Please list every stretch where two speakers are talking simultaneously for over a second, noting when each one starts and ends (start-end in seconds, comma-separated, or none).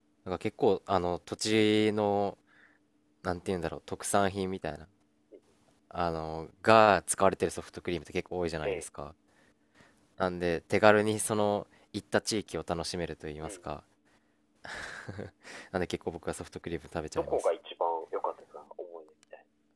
none